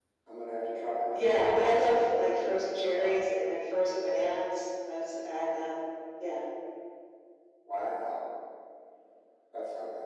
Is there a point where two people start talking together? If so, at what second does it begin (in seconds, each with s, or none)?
1.1 s